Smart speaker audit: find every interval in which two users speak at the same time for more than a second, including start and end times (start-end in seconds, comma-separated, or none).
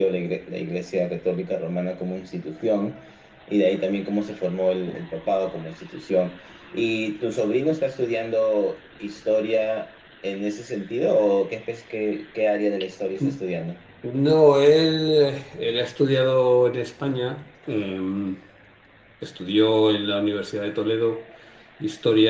none